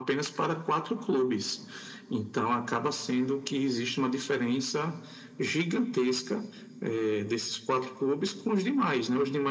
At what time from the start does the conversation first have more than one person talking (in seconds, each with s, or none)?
none